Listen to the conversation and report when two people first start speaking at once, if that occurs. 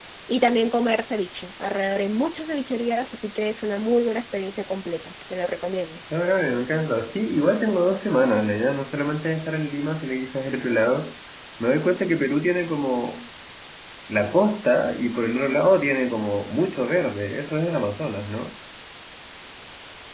none

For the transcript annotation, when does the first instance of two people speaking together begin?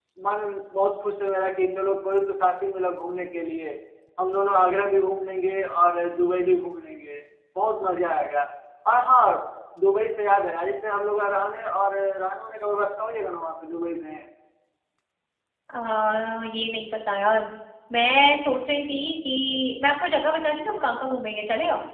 none

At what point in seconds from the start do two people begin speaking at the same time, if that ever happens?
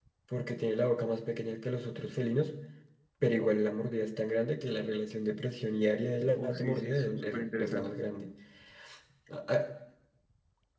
6 s

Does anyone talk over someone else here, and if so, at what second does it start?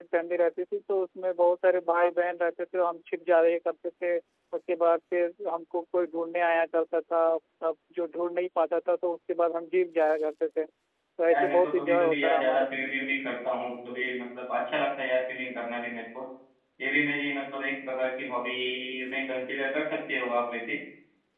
11 s

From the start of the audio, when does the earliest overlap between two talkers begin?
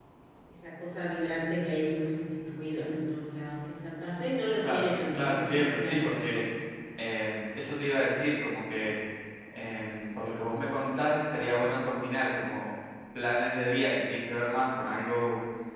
5 s

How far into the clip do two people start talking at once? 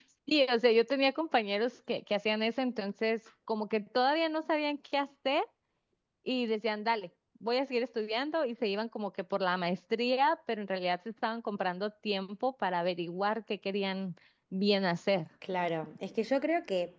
none

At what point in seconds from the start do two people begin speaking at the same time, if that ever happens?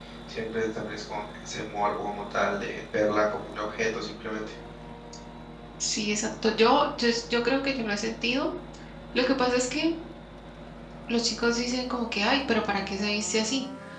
none

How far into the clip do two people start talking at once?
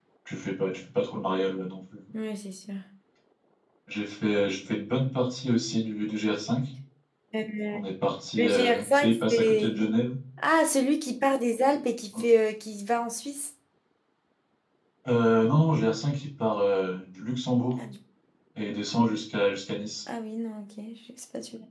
8 s

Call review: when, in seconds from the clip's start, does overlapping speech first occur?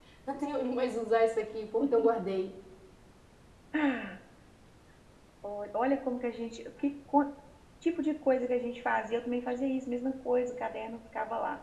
none

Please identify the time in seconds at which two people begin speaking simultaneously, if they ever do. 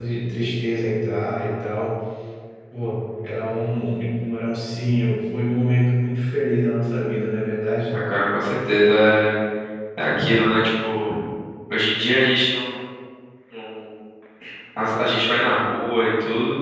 none

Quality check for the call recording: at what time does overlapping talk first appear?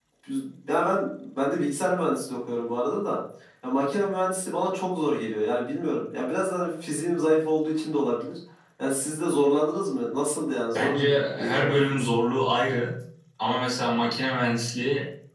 11 s

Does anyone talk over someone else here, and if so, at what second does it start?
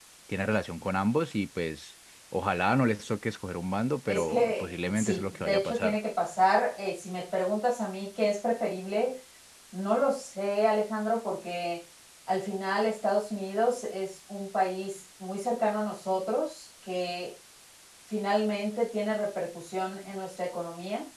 4 s

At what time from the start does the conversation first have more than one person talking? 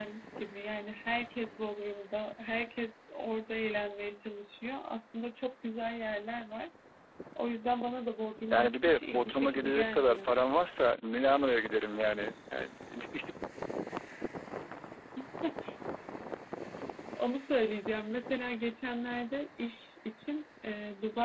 9 s

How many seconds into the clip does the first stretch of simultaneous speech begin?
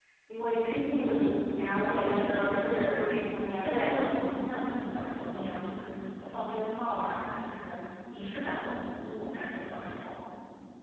2 s

